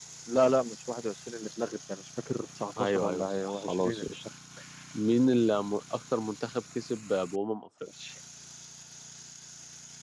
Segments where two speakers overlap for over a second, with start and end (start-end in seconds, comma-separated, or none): 2.8-4.0